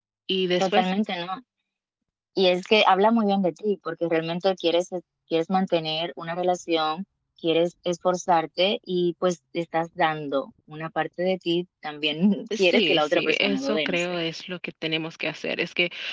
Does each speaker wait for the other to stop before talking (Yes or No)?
No